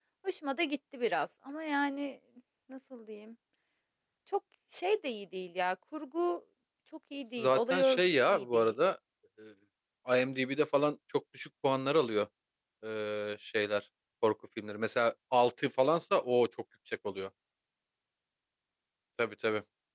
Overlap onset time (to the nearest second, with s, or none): 7 s